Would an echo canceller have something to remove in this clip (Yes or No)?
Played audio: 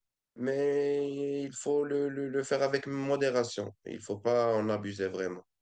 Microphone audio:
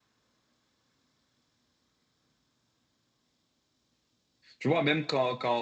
No